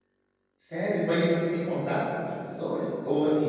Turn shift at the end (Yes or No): No